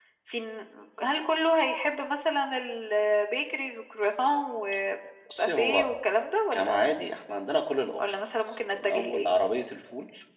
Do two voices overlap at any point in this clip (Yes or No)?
Yes